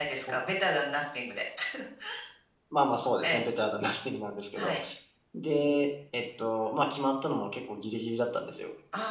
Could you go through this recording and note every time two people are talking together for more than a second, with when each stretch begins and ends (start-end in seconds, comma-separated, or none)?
none